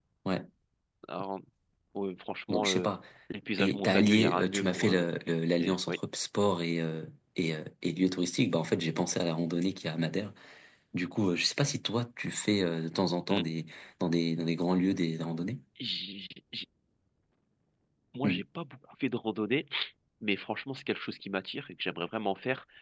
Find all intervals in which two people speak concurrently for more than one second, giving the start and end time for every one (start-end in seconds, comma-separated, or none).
3.6-5.1